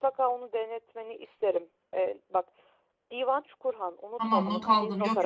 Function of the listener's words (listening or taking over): taking over